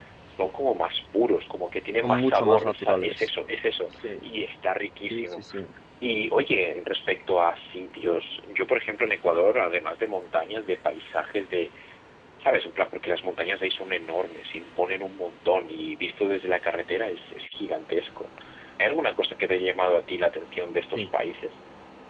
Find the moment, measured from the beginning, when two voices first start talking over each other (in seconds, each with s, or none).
2.0 s